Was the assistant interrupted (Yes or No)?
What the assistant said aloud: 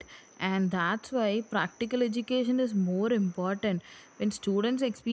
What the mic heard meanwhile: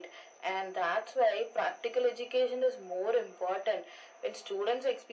No